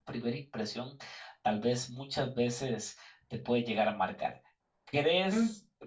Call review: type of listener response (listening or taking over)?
listening